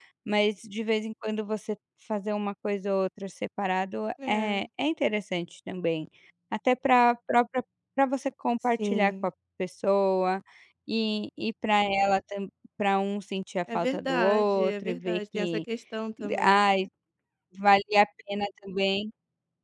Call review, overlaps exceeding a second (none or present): present